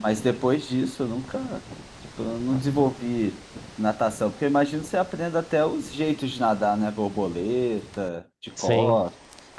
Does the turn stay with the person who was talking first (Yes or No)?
No